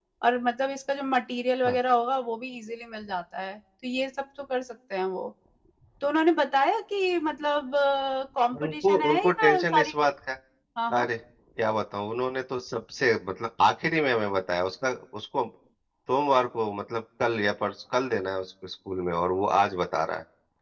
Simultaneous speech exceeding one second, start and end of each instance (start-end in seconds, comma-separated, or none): 8.6-9.9